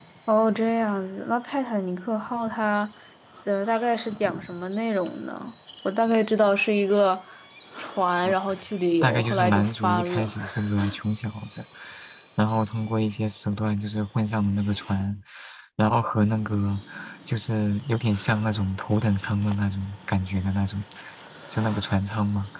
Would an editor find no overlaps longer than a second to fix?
No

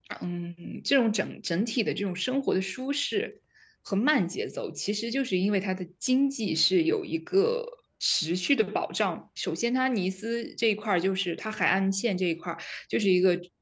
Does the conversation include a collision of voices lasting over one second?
No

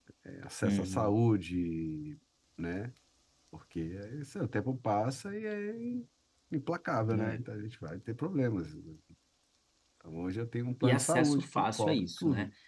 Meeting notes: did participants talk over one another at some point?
Yes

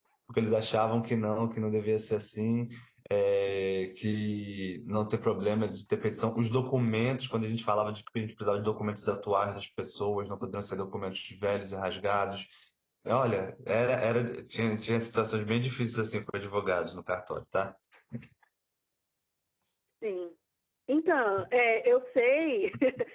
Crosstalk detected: No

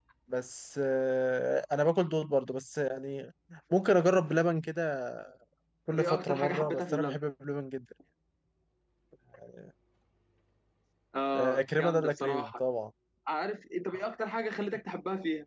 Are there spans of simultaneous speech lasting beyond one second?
Yes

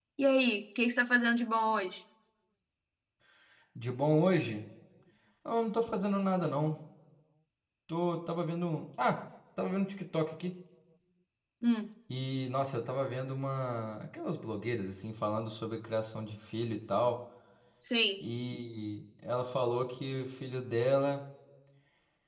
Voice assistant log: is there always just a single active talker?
Yes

